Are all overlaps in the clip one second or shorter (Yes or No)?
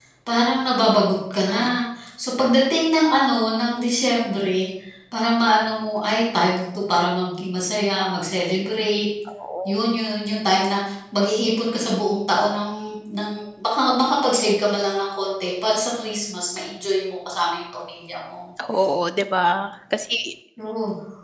Yes